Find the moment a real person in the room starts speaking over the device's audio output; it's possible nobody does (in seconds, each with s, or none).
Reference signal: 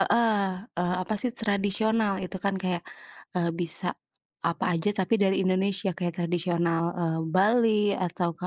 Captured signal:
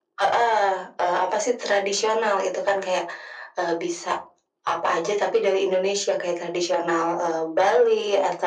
none